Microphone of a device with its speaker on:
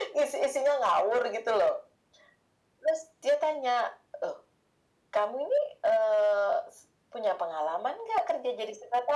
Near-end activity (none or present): none